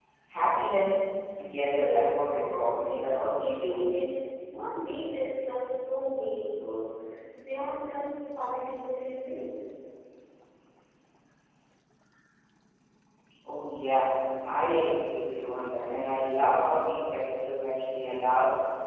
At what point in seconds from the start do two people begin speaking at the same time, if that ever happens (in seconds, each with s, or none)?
1.6 s